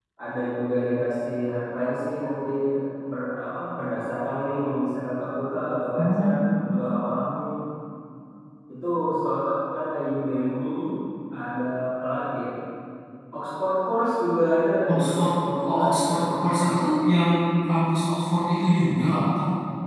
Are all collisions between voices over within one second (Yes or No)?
No